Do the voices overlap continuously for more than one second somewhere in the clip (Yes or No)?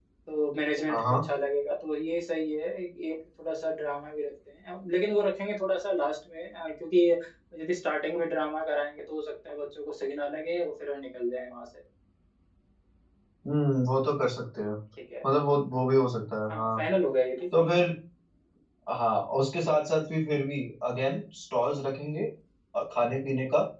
No